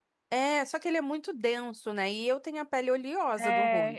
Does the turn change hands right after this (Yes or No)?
Yes